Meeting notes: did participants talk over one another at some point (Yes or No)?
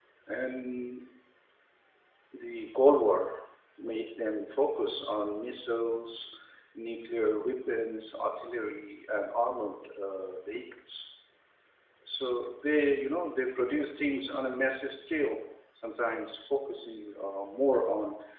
No